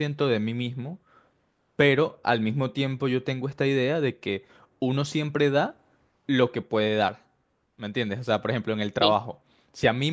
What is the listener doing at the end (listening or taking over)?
listening